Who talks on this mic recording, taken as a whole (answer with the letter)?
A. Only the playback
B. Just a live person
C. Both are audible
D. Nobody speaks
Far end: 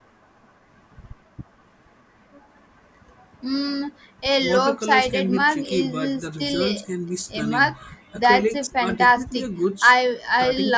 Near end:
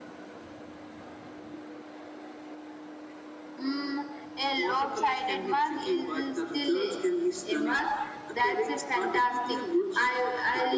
A